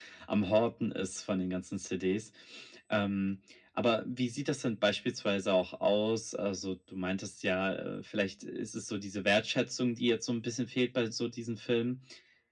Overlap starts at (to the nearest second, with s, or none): none